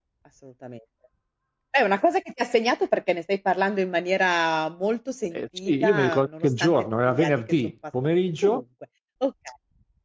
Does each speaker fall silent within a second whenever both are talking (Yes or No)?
No